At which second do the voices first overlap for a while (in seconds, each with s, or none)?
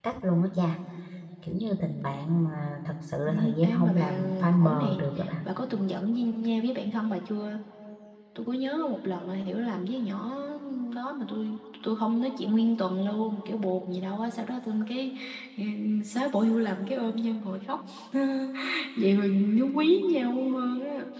3.3 s